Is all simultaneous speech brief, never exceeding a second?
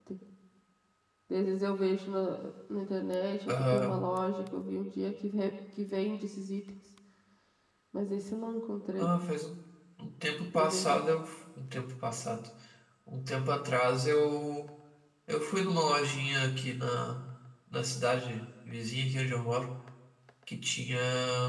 Yes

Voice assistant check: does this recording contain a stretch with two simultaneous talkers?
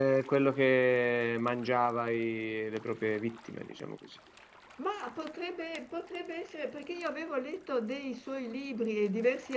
No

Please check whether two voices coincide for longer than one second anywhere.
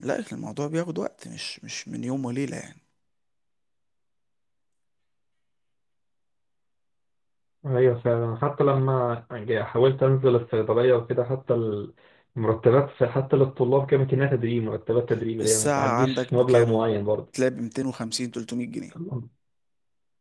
Yes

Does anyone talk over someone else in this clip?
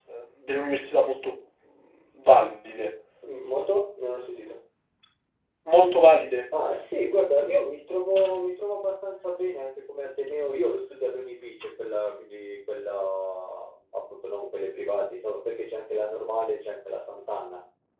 No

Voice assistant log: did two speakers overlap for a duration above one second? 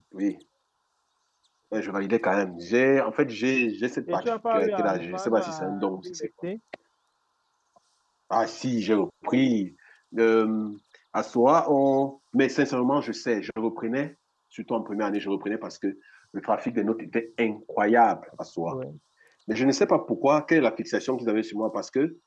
Yes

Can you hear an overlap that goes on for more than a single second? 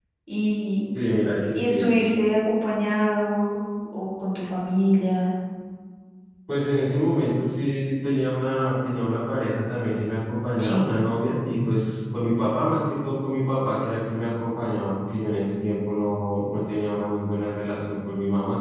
No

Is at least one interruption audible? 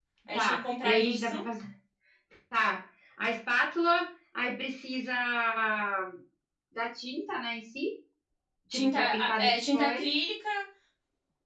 Yes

